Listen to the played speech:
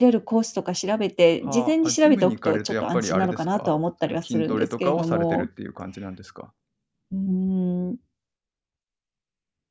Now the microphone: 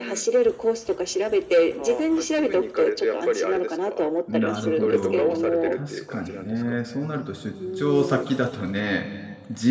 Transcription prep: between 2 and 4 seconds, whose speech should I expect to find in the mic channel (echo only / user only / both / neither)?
echo only